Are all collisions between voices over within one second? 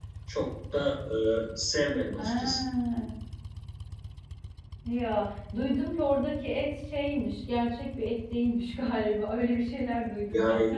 Yes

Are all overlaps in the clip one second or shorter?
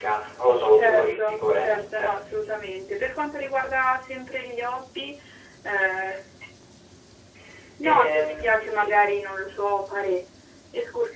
No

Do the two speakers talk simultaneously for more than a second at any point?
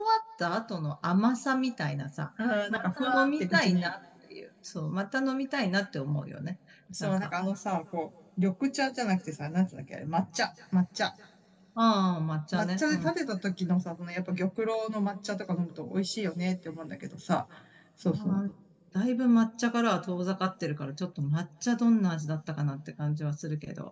Yes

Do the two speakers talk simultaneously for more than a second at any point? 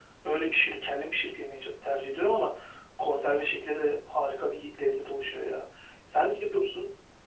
No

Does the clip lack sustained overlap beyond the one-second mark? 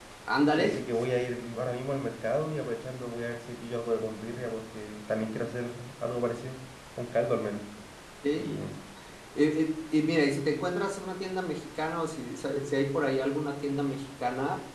Yes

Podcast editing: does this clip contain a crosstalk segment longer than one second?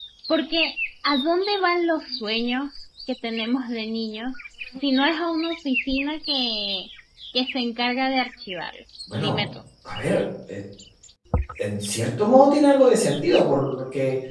No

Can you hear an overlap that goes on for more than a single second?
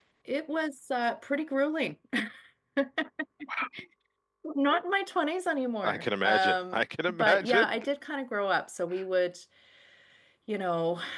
Yes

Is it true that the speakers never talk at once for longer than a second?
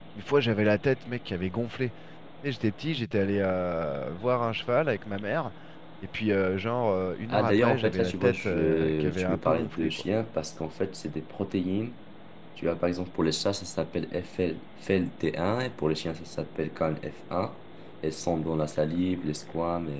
No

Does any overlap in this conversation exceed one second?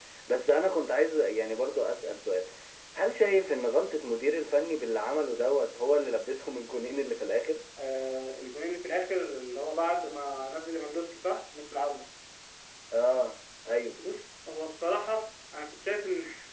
No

